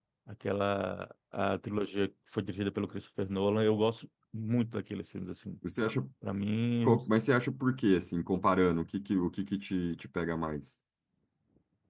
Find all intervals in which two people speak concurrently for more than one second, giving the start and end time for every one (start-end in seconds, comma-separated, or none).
none